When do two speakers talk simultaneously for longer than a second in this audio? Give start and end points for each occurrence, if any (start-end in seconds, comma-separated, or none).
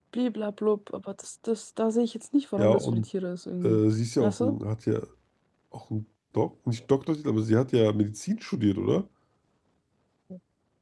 none